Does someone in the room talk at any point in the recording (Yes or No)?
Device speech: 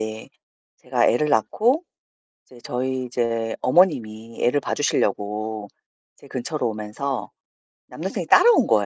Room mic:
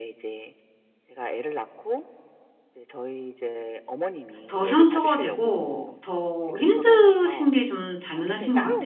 Yes